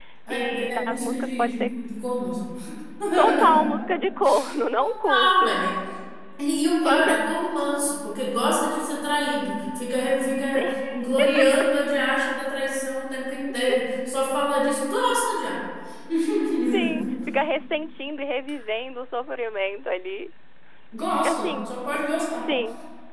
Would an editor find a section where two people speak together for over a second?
Yes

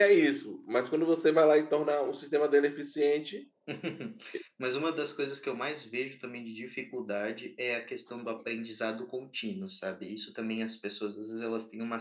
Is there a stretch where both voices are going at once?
No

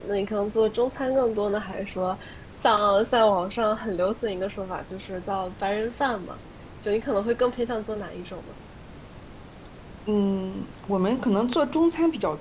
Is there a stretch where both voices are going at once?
No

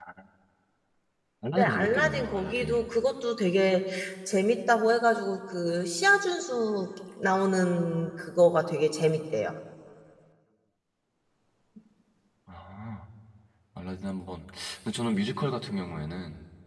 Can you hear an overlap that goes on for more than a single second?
Yes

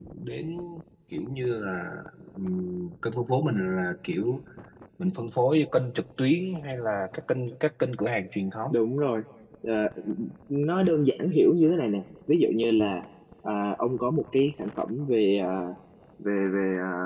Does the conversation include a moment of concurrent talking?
No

